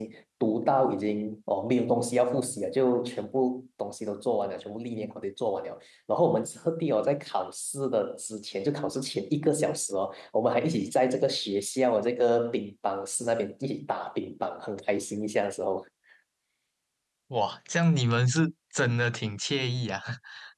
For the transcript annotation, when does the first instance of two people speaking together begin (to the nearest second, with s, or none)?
none